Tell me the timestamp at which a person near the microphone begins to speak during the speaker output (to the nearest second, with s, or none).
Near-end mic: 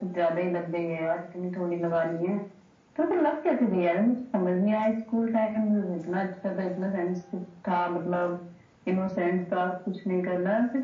none